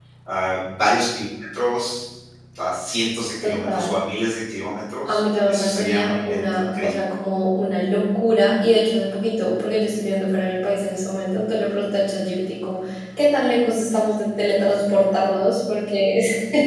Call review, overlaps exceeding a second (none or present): present